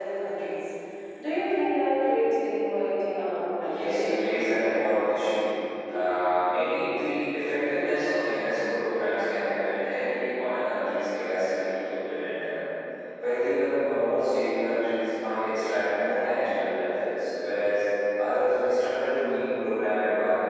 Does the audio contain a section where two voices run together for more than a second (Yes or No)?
Yes